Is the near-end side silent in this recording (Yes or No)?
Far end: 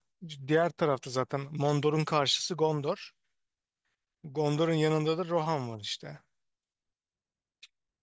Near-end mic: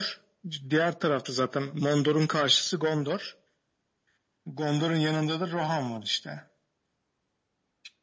Yes